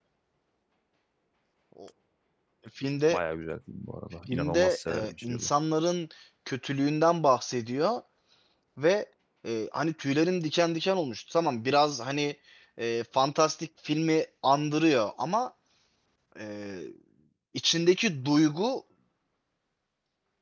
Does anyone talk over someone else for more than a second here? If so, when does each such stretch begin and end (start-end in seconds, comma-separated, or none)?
4.3-5.5